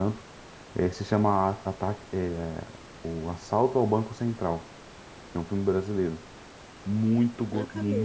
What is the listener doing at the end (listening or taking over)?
listening